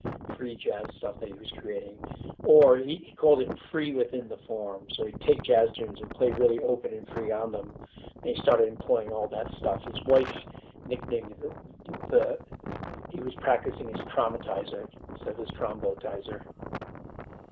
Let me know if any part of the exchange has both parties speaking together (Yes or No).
No